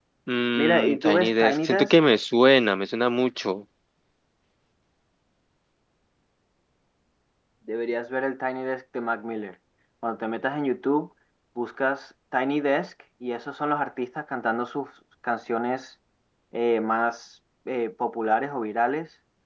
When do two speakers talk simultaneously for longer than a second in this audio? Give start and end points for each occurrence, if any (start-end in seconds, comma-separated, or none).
0.5-1.9